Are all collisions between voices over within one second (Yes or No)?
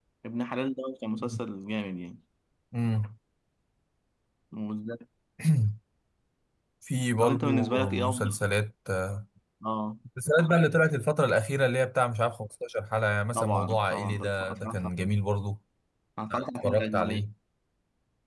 No